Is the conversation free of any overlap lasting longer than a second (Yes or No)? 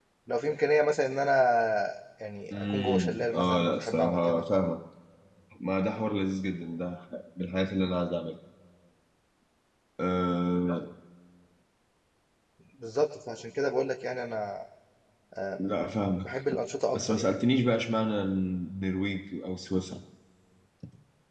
No